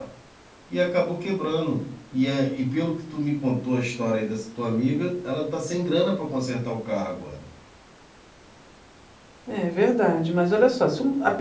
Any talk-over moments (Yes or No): No